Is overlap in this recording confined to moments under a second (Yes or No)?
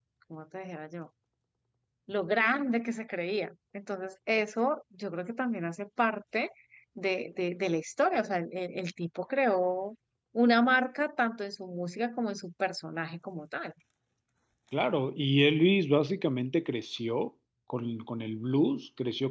Yes